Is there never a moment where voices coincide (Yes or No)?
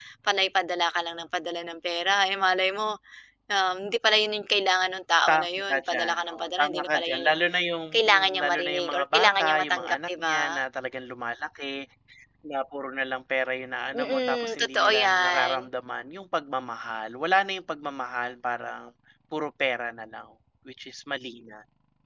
No